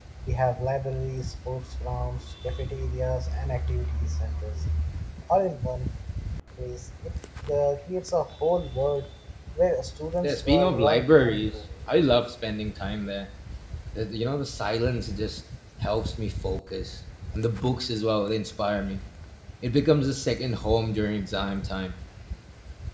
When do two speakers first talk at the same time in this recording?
10.2 s

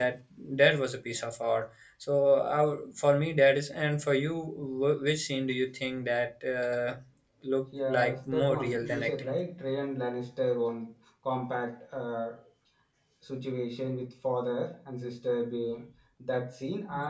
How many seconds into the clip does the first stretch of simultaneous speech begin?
7.9 s

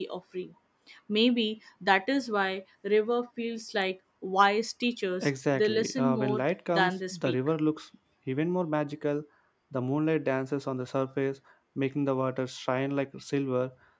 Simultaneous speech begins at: 5.2 s

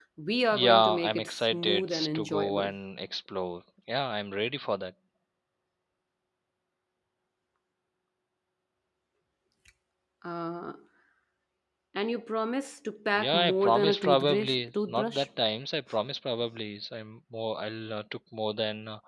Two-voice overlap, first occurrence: 0.5 s

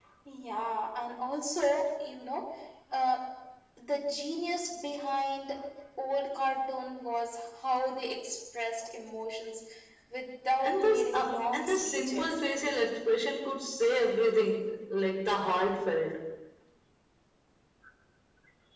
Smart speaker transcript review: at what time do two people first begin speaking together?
10.6 s

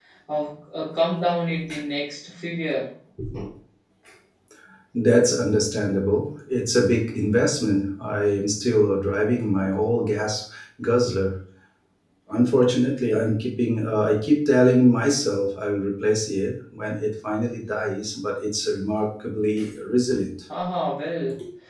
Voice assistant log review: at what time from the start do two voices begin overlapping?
none

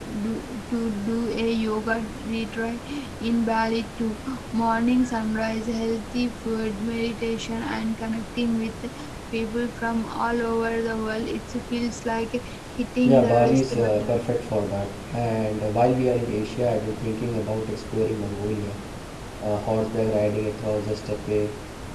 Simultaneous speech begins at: 13.0 s

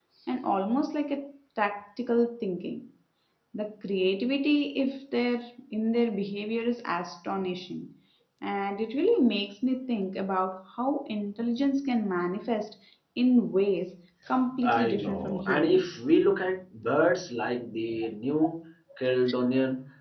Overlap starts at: 14.6 s

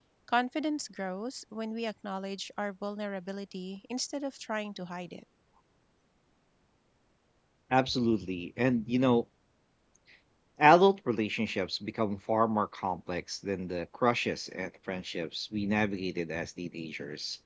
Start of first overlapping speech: none

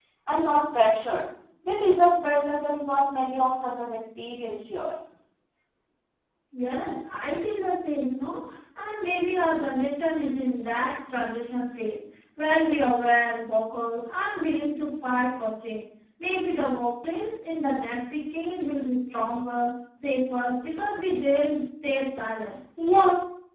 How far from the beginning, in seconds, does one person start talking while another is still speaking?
none

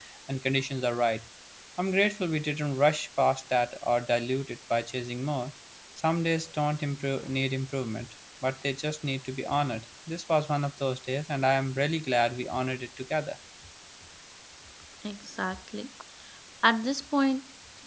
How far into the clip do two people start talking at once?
none

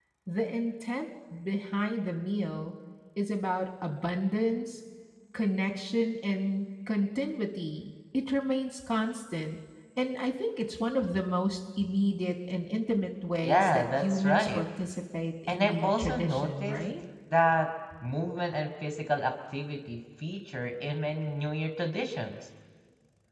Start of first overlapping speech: 13.4 s

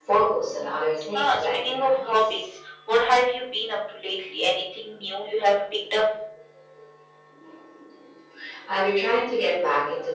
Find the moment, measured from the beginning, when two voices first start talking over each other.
1.1 s

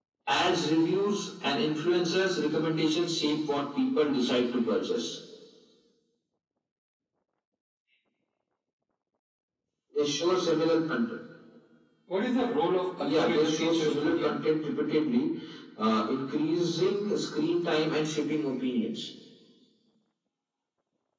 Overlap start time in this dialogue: 13.0 s

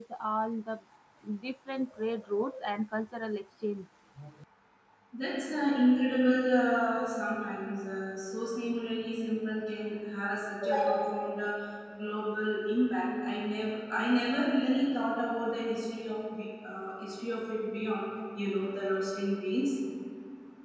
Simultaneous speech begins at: none

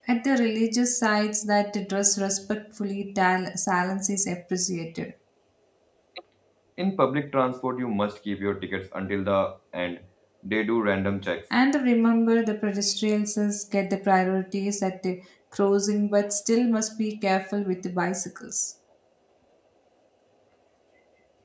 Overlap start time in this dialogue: none

